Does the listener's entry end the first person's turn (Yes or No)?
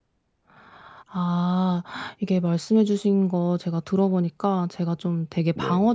No